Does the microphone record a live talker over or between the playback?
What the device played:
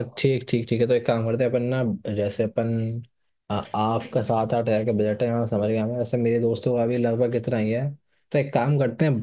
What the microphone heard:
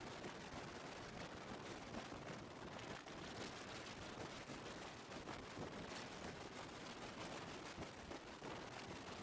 No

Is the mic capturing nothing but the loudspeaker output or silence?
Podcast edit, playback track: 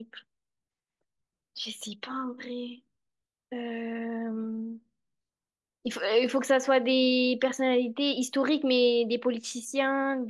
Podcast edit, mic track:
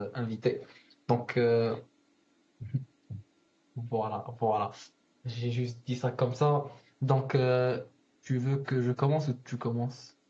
No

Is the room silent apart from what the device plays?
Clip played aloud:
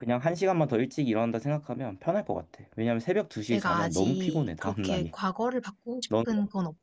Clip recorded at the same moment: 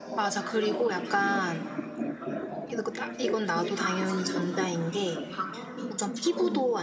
No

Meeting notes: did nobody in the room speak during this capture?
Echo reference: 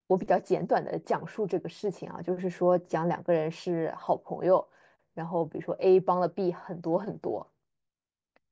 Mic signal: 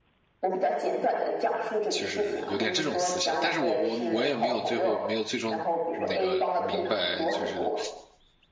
No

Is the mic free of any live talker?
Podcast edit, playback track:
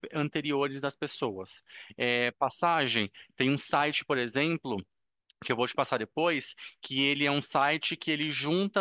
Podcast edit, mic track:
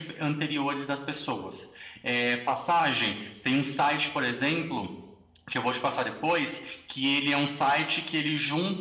Yes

